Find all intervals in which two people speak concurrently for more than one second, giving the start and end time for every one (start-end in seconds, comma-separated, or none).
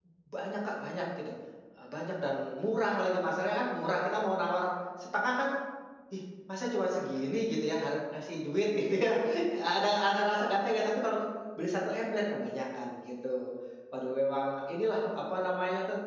none